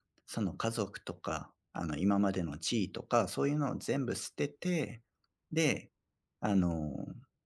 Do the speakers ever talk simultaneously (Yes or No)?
No